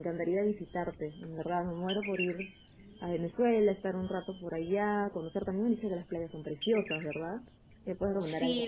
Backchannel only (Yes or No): No